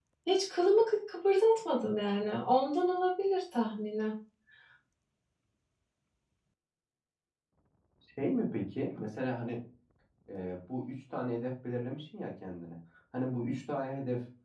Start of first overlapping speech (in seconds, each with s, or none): none